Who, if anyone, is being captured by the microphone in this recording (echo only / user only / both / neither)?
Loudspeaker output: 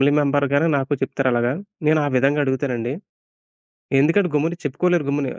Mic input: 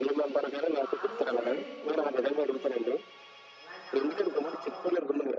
both